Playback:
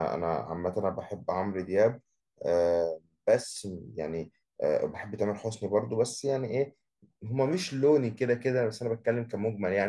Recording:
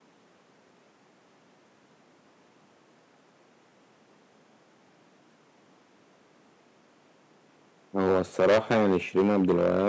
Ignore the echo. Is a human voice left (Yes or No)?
Yes